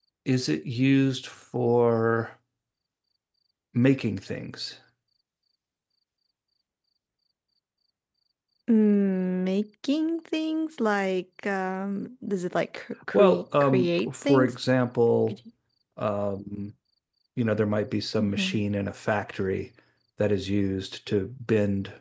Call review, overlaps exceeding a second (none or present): present